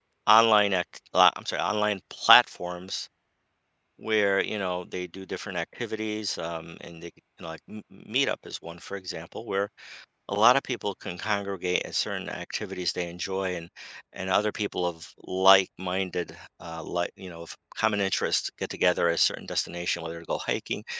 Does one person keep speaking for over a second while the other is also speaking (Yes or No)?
No